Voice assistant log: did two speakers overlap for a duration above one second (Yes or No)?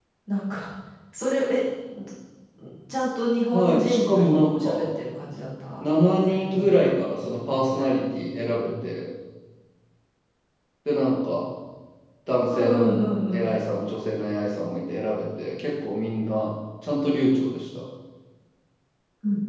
Yes